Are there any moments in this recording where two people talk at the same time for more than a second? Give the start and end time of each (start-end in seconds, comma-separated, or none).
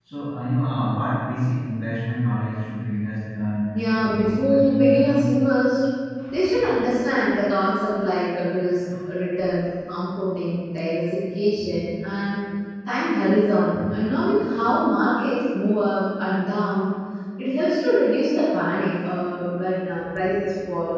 3.7-5.2